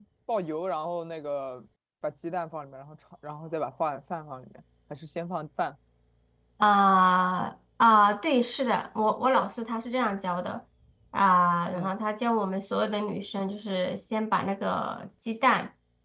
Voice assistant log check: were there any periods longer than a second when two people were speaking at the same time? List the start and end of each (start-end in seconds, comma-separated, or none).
none